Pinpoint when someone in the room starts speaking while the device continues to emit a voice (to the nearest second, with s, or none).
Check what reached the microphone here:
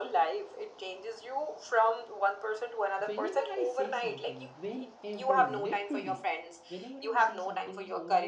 3 s